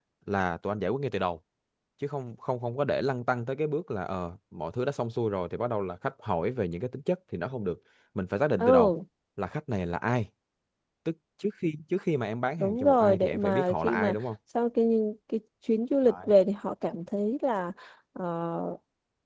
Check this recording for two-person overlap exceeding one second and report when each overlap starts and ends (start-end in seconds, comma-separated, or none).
12.6-14.2